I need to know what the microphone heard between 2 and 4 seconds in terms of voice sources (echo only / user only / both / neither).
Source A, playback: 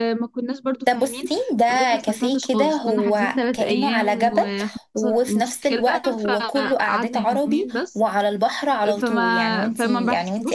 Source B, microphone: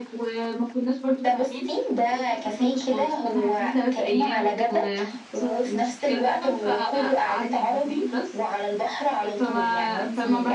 echo only